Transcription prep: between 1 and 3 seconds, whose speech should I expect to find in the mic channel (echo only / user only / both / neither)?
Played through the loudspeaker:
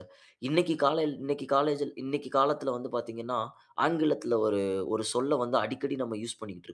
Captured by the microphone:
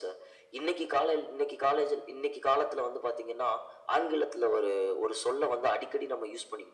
echo only